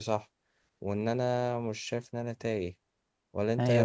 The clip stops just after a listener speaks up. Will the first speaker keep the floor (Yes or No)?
No